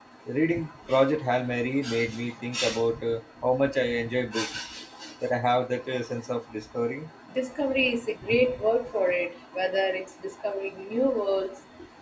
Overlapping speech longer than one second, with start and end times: none

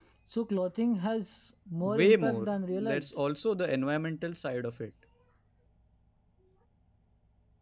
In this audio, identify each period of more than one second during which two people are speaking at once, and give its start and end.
1.8-3.2

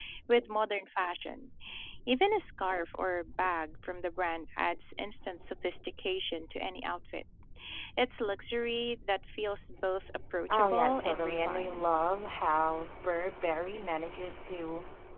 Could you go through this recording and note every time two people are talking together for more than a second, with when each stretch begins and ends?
10.5-11.8

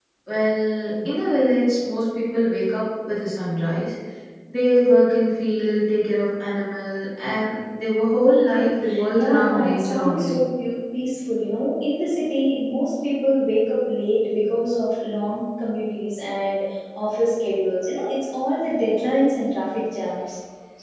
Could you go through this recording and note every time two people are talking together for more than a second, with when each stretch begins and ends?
9.1-10.4

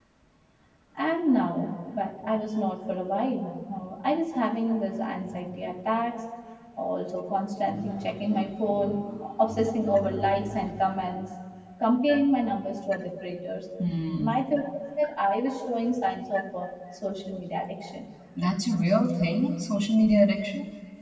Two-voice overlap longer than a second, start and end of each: none

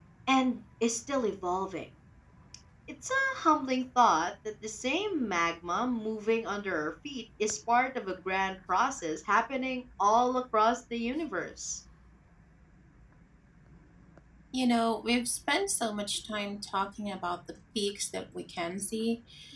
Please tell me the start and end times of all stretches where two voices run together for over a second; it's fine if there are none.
none

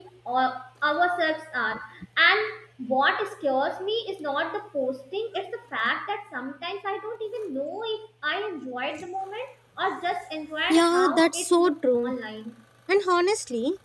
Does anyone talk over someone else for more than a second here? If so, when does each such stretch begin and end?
10.7-12.1

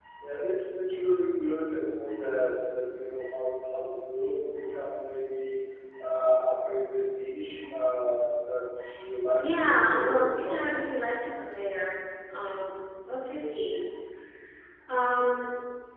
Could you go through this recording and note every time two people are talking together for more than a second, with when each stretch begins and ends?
9.3-10.8

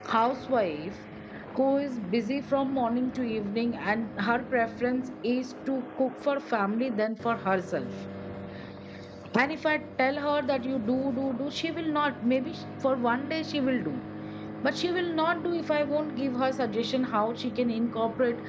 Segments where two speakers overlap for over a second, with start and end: none

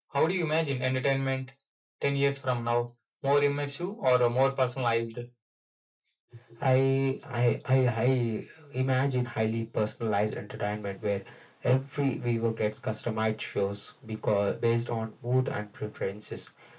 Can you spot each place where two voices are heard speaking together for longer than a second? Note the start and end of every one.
none

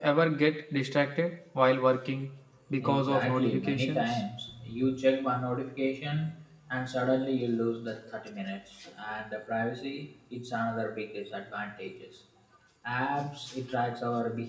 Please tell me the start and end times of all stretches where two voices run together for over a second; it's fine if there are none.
2.8-4.2

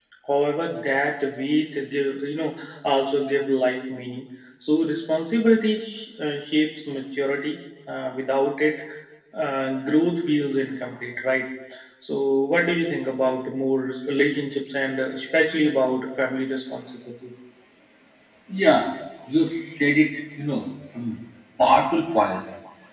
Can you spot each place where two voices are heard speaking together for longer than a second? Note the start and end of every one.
none

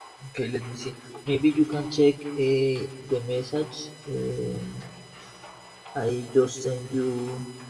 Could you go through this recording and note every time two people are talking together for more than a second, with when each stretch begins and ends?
none

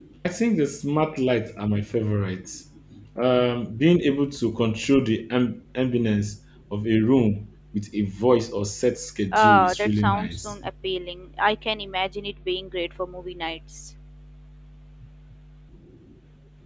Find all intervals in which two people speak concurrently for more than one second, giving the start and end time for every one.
9.3-10.5

